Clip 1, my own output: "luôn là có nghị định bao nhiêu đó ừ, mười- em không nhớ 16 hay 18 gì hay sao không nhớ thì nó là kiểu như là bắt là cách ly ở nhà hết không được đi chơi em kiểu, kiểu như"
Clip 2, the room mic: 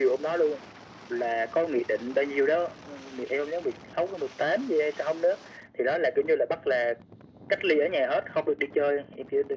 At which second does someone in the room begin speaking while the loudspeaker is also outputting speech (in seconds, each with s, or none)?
none